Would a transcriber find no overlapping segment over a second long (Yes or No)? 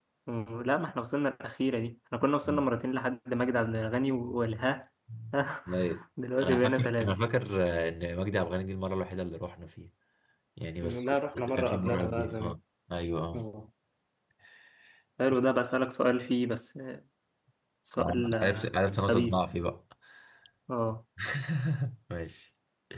No